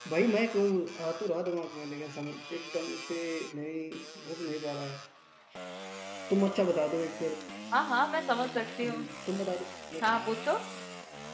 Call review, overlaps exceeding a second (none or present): none